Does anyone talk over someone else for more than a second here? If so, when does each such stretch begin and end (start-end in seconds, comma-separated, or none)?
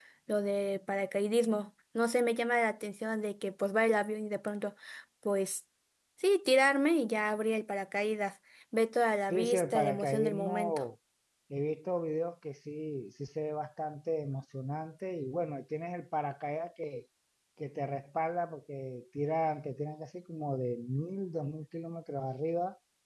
9.3-10.8